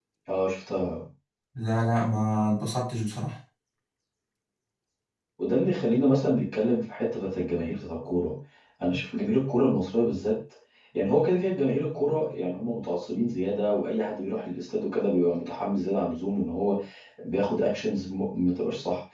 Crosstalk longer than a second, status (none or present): none